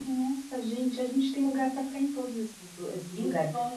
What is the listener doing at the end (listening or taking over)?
listening